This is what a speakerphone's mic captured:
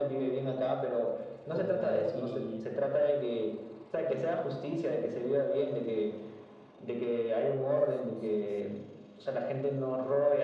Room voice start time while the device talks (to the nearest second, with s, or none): 1 s